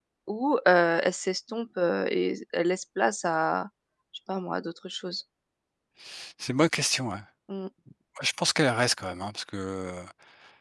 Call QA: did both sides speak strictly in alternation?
Yes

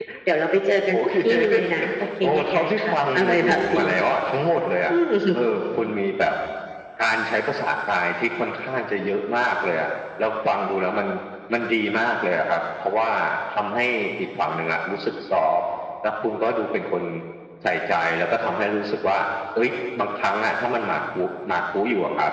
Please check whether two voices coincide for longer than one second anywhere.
Yes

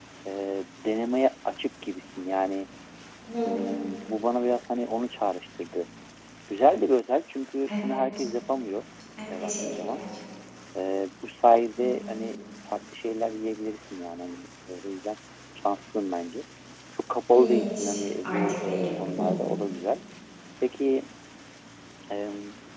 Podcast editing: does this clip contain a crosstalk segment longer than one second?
Yes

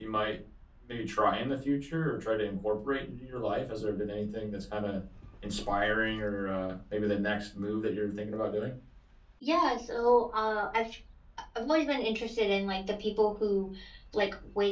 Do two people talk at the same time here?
No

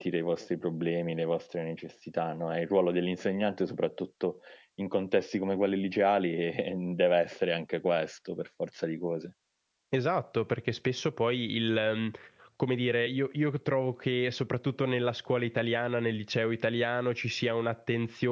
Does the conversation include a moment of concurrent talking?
No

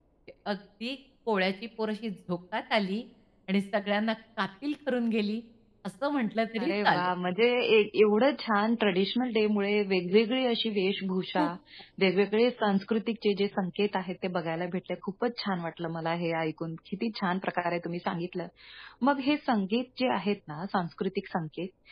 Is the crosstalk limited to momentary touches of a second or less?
Yes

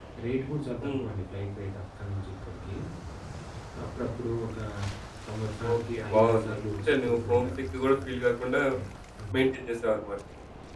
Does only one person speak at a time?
No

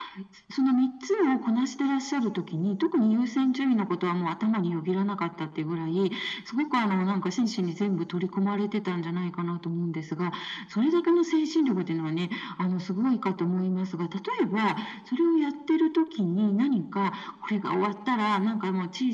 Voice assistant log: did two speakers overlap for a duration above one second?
No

